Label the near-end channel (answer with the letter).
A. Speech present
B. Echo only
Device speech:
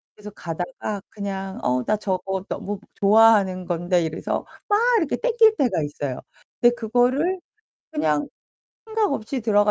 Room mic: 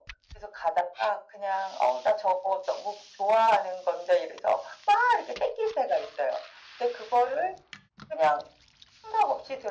B